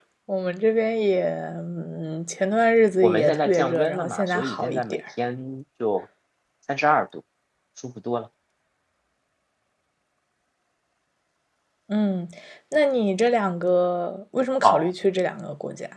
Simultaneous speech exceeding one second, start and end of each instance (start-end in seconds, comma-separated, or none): 3.0-5.0